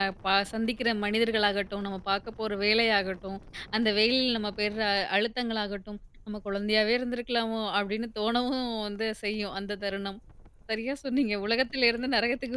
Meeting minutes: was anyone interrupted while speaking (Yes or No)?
No